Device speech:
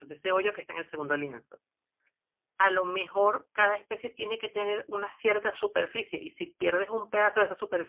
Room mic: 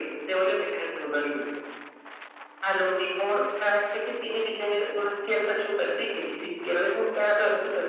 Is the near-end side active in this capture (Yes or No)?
No